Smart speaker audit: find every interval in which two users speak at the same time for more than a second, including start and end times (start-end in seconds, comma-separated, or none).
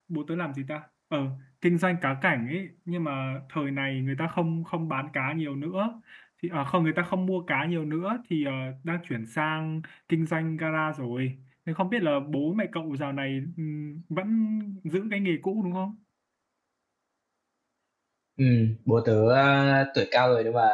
none